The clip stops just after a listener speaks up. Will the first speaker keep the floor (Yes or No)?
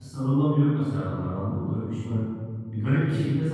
Yes